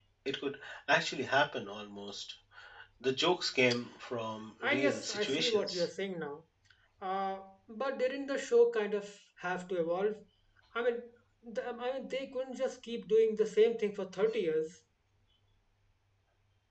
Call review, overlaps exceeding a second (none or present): present